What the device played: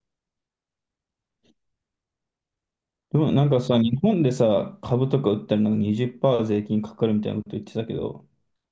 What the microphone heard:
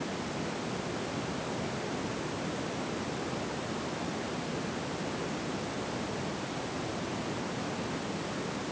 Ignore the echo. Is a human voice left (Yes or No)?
No